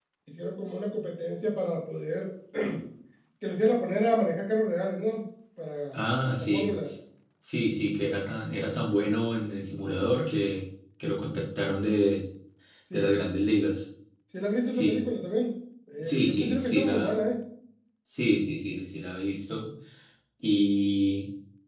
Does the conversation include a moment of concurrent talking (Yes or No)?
Yes